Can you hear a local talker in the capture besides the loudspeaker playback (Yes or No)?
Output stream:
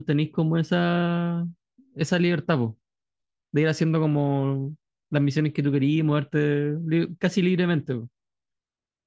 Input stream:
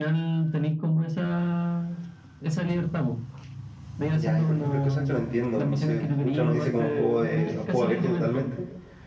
Yes